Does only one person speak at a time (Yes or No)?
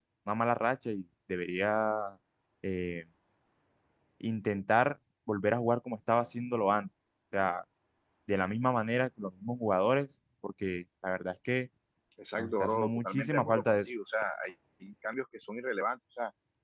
No